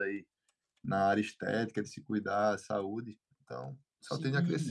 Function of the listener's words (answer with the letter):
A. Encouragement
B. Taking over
B